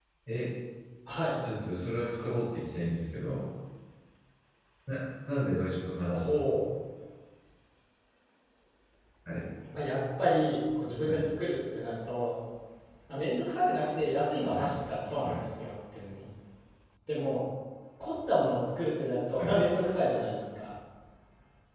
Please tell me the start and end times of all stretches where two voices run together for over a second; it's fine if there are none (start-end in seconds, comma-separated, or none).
none